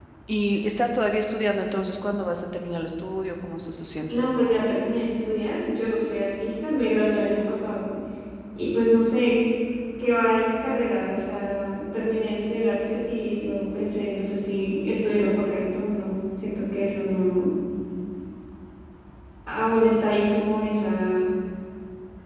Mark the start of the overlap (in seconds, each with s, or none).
none